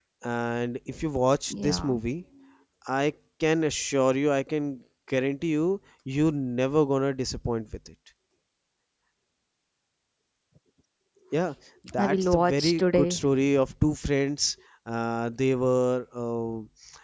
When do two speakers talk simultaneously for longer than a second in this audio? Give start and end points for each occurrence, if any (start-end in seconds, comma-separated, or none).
12.0-13.3